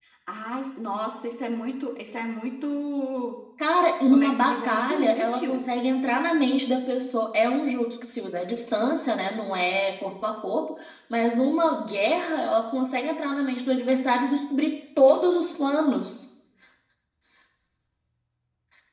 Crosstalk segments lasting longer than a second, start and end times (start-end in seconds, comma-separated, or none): 4.1-5.6